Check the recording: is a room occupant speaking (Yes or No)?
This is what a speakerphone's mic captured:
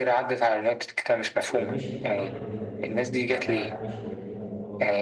Yes